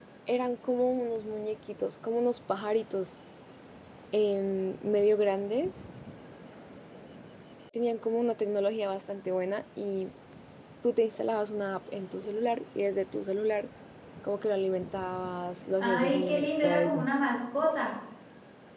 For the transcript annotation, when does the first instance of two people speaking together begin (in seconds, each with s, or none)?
15.8 s